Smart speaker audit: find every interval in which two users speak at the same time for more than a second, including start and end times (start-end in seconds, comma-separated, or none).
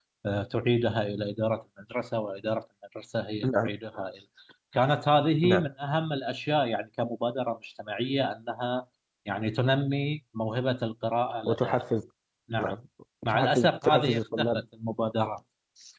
13.3-14.6